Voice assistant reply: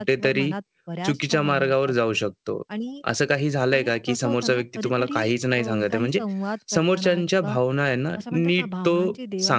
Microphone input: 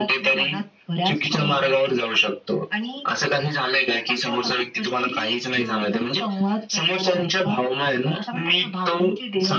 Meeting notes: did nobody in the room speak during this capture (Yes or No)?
Yes